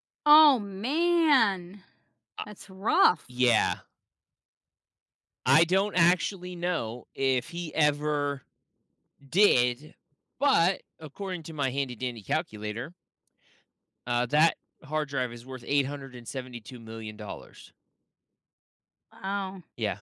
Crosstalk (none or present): none